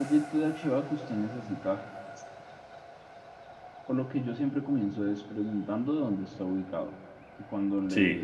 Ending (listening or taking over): listening